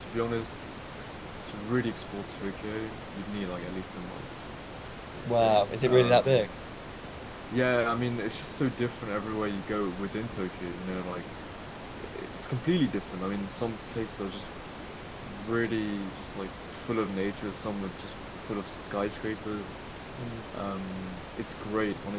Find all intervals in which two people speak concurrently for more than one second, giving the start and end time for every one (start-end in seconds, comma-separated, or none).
5.2-6.5